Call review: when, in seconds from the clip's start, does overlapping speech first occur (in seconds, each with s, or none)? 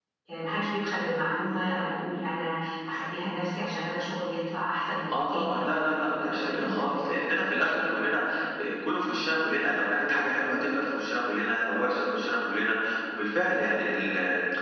5.1 s